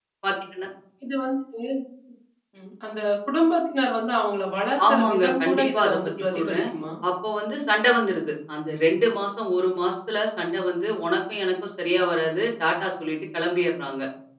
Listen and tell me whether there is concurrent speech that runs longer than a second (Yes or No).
Yes